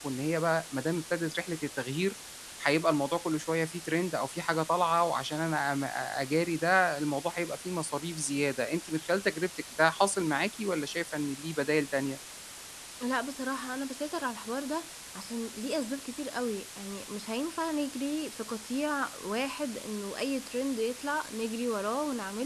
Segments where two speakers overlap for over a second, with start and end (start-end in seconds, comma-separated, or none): none